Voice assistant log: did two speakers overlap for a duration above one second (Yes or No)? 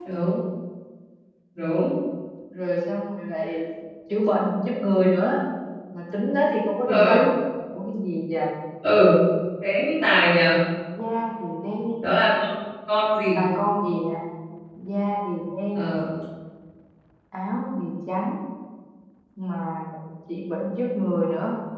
No